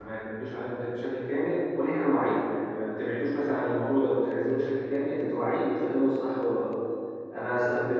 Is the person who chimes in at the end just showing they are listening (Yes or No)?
Yes